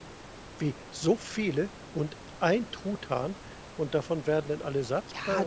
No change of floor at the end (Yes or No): No